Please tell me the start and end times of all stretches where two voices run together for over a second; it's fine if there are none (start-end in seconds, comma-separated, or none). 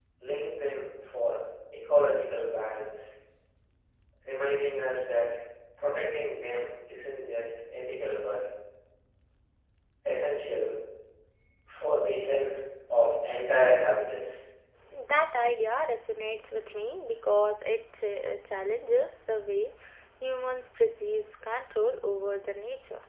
none